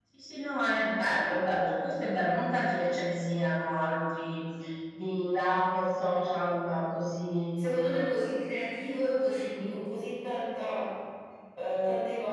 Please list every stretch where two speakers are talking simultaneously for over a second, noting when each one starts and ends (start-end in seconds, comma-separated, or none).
none